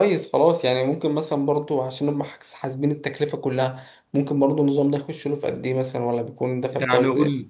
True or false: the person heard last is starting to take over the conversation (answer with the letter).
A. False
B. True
B